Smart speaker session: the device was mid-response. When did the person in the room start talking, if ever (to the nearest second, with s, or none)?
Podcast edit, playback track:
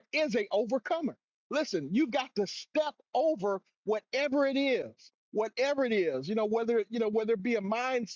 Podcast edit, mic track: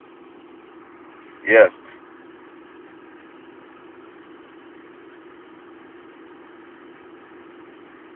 1 s